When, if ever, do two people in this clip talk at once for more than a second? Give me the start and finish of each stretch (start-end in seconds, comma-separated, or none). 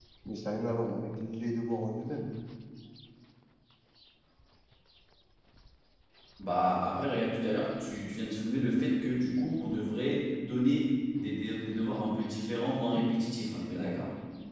none